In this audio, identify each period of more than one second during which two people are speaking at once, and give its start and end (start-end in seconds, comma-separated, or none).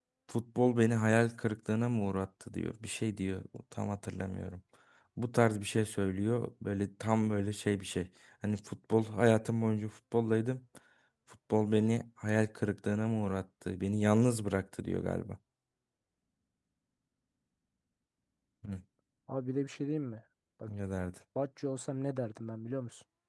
none